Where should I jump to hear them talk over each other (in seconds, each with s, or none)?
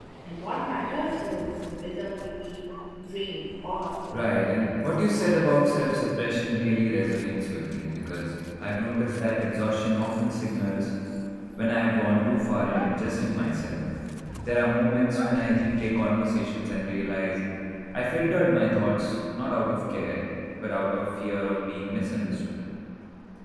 4.1 s